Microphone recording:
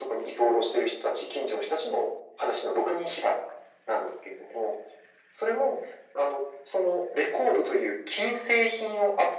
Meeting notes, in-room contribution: none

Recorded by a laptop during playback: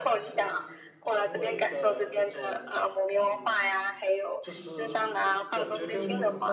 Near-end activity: present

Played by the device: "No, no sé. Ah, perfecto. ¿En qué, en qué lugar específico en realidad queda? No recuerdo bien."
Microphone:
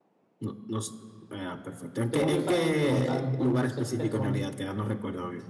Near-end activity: present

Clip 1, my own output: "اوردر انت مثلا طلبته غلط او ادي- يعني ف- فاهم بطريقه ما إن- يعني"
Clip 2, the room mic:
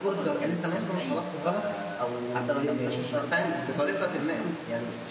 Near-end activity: present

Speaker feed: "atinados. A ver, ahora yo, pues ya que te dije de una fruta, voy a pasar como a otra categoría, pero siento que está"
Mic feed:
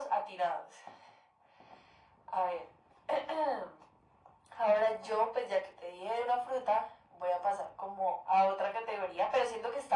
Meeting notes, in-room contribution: none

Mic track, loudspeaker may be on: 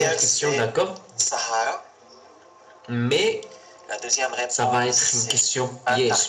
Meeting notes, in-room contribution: present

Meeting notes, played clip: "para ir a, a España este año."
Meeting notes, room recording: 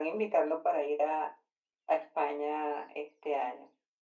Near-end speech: none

